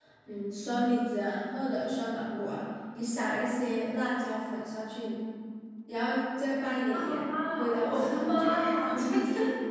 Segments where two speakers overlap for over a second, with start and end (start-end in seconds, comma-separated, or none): 6.9-8.6